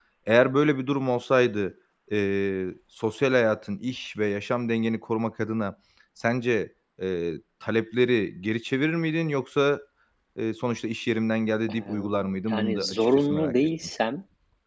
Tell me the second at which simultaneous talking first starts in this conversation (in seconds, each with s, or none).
11.7 s